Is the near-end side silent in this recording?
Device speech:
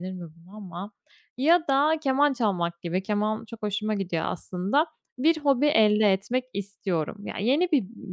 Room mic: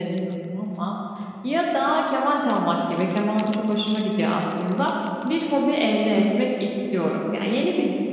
Yes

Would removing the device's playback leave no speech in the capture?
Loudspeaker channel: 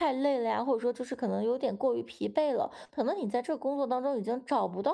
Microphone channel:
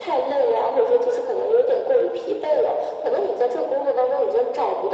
Yes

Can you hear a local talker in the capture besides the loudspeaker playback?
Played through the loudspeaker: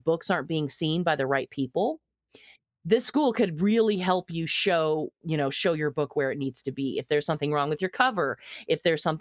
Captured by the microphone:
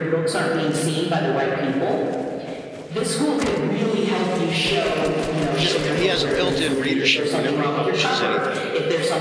Yes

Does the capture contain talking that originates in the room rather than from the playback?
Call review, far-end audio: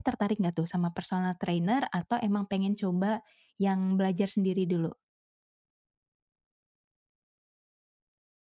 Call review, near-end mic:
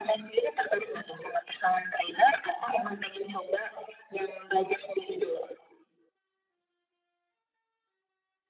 No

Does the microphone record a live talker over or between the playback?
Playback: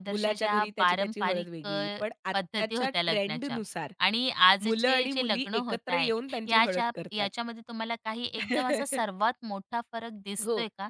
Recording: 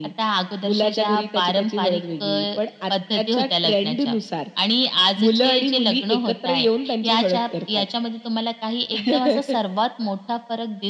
No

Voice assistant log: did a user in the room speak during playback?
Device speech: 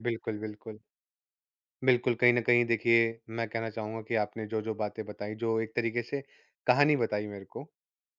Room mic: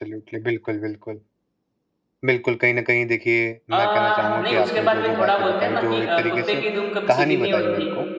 Yes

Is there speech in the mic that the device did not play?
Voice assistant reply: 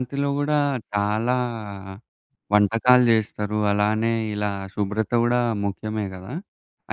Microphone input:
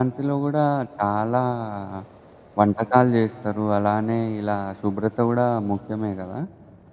No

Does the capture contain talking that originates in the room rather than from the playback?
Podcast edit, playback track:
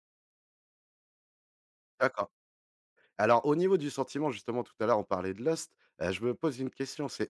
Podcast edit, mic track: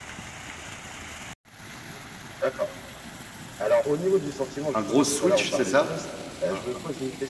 Yes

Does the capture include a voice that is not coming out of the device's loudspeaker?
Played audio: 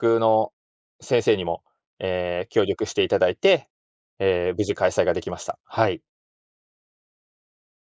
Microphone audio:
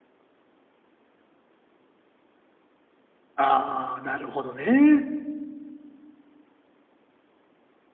Yes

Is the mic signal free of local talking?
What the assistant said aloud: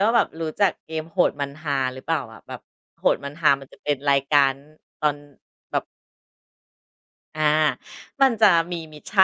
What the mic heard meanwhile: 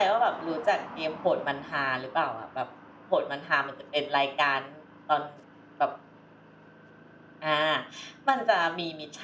Yes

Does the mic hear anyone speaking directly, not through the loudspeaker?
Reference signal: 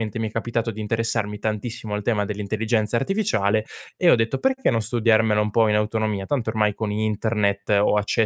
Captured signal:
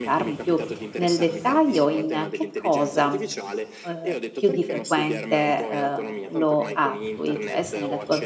Yes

